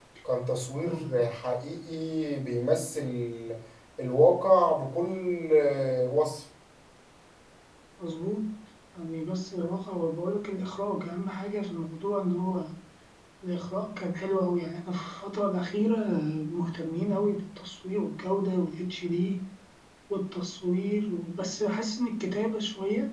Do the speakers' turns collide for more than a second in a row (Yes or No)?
No